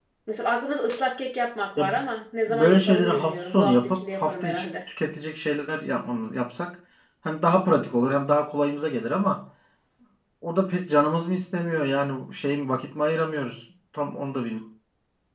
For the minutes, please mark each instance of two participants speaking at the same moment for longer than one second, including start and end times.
2.5-4.7

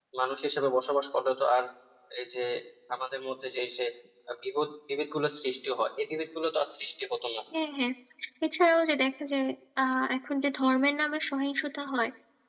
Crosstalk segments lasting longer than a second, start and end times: none

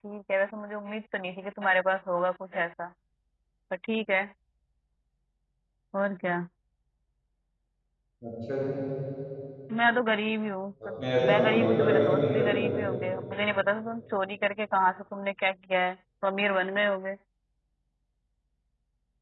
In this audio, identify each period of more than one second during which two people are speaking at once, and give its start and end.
11.3-12.6

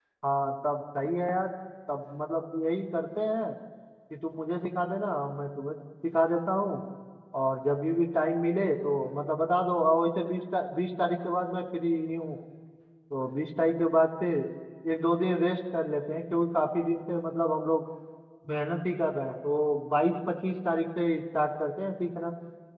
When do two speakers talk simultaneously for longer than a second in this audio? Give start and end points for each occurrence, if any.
none

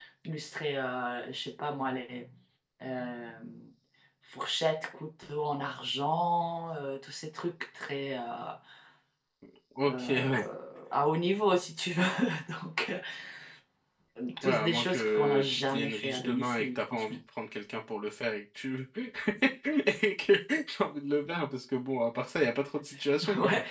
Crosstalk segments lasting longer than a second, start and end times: 14.4-17.2

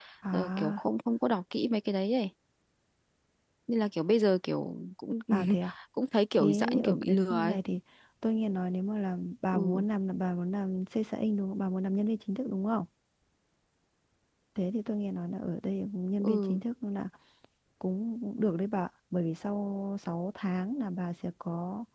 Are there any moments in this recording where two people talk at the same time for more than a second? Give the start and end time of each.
6.3-7.6

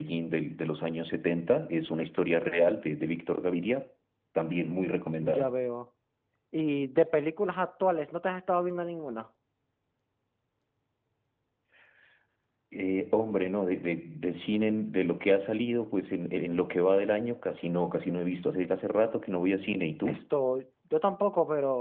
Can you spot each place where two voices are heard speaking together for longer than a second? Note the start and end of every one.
none

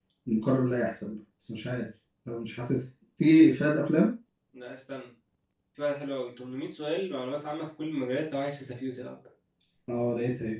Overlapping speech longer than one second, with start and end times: none

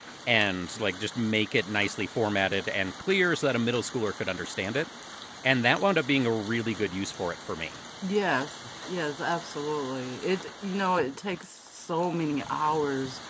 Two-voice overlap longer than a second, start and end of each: none

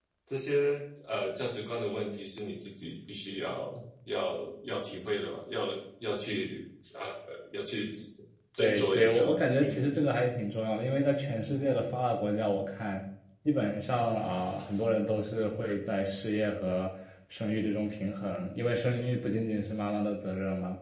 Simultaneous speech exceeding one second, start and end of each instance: 8.6-9.8

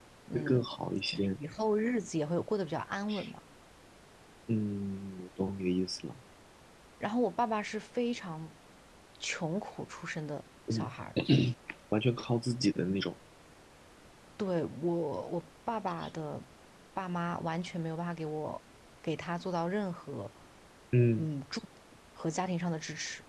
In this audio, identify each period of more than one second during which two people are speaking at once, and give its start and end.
none

